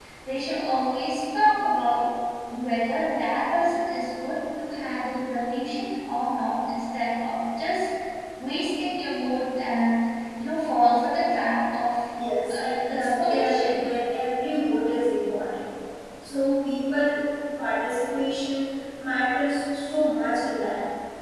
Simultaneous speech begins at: 12 s

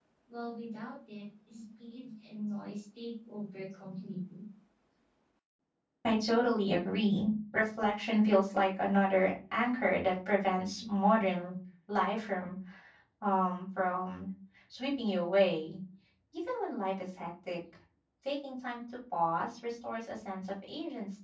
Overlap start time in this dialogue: none

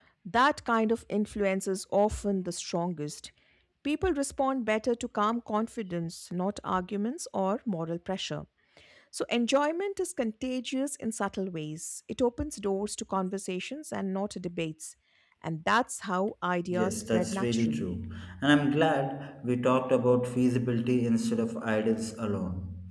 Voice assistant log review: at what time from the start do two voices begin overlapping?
17 s

